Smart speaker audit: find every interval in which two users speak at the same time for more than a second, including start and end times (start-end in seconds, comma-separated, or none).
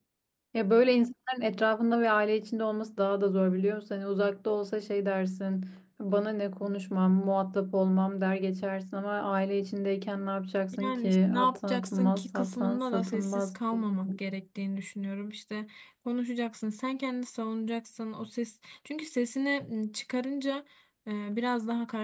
10.7-13.6